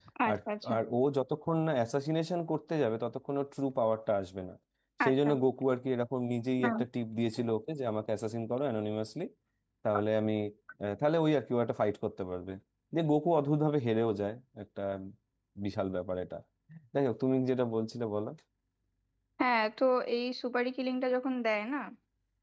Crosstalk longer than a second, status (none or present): none